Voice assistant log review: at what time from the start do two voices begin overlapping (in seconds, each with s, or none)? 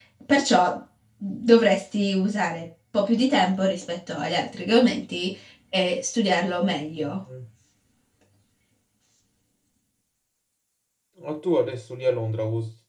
none